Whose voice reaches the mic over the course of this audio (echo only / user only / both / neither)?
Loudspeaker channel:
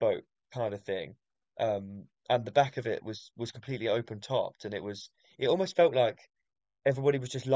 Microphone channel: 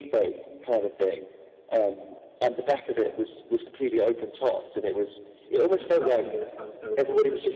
both